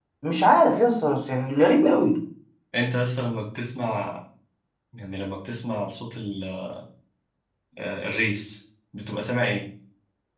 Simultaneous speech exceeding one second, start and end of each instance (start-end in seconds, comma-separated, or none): none